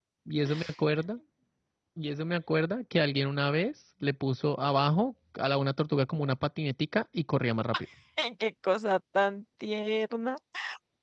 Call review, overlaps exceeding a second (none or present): none